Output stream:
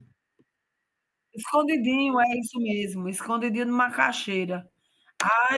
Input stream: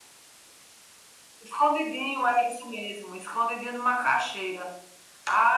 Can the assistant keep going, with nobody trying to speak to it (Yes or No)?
Yes